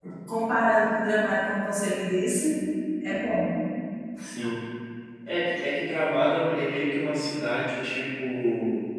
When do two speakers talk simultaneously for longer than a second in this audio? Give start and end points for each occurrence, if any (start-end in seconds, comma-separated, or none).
none